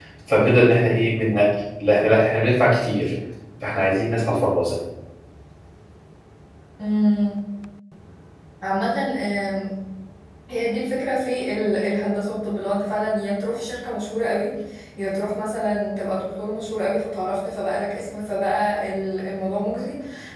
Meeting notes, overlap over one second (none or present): none